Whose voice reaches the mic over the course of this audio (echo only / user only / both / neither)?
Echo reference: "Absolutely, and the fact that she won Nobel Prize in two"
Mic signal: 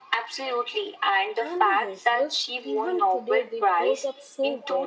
both